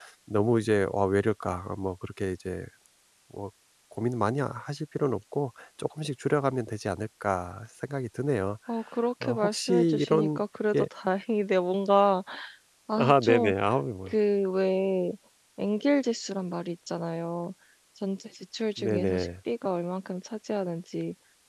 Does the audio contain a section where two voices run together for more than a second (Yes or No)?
Yes